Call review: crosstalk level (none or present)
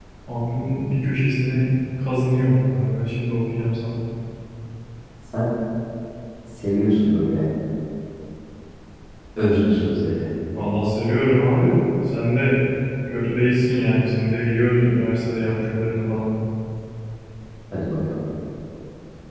none